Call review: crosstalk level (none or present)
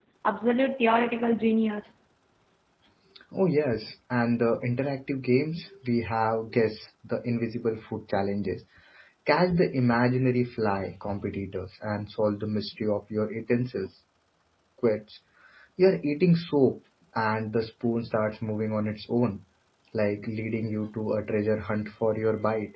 none